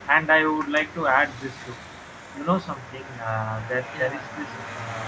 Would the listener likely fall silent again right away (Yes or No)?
Yes